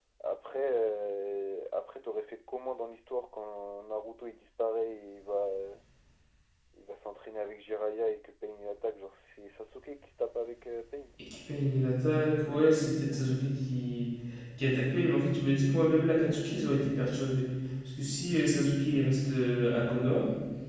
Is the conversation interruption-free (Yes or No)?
Yes